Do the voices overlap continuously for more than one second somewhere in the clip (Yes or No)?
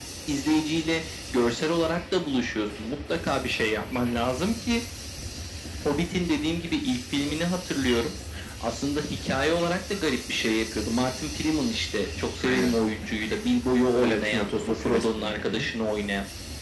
Yes